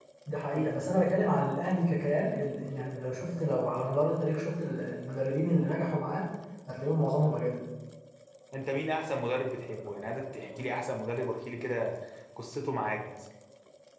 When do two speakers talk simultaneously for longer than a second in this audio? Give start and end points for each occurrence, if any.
none

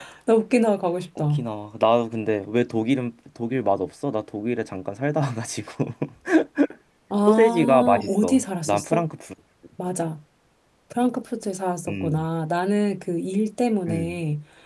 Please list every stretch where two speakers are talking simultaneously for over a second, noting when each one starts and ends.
7.3-9.0

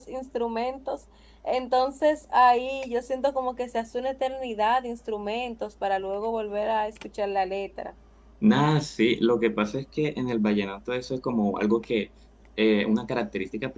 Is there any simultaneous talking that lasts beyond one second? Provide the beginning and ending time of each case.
none

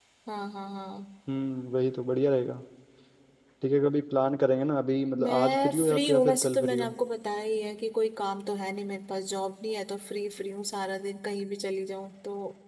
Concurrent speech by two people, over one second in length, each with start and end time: 5.2-6.9

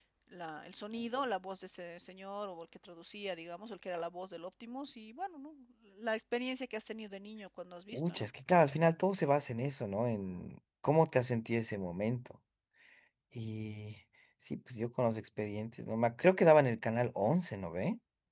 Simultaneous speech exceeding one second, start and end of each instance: none

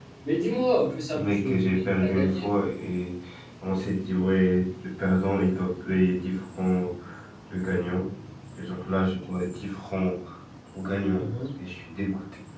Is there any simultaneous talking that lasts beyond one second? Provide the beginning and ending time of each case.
1.1-2.9

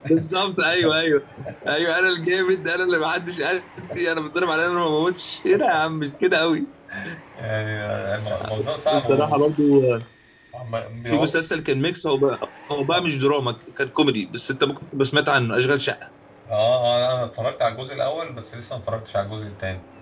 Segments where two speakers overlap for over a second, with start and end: none

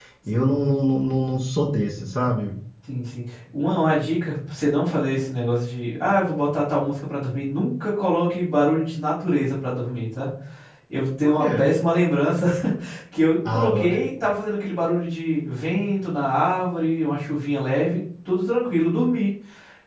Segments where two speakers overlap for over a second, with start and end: none

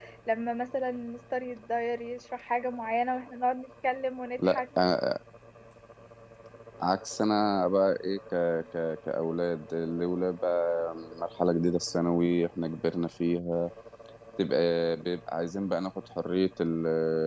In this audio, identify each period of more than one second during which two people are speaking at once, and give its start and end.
none

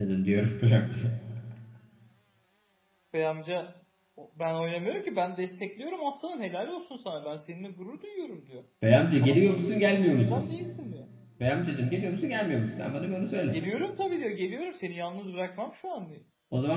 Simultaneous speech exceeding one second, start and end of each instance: 9.2-10.6

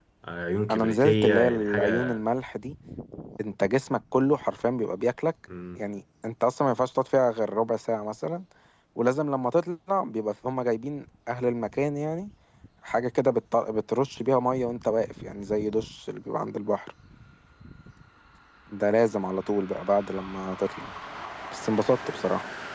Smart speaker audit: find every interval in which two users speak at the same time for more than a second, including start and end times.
0.7-2.2

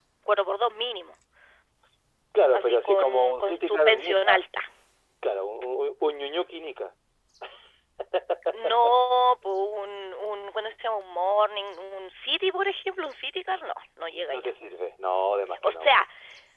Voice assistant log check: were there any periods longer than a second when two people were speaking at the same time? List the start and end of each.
2.5-4.4

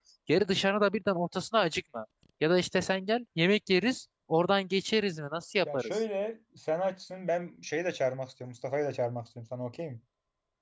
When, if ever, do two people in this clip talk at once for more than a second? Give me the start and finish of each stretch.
none

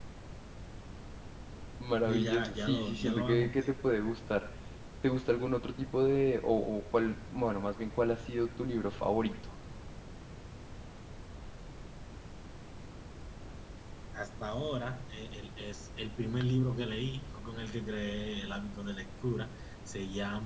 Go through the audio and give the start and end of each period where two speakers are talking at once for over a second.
2.0-3.7

